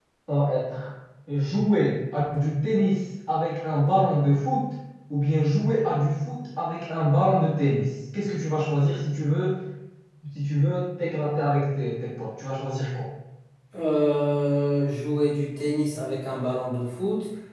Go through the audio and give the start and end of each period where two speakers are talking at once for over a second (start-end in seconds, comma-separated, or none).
none